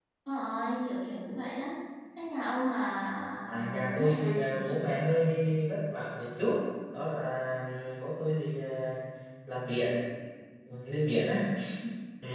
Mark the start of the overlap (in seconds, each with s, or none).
3.5 s